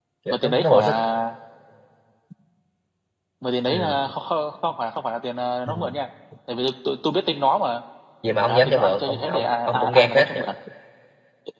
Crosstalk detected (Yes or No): Yes